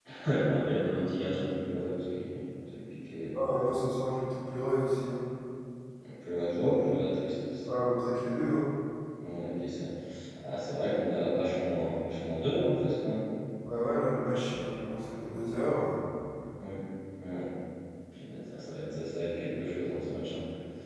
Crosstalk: none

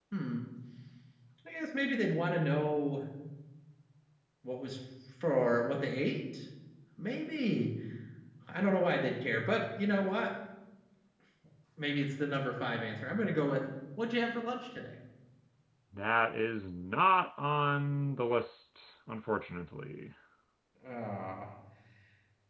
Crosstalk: none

